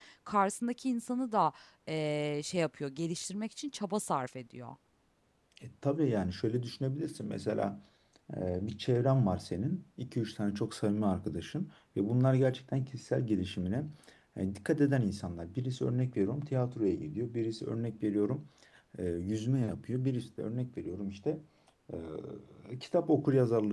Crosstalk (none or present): none